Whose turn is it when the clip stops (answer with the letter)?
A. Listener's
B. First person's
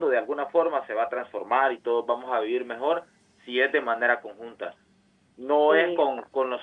B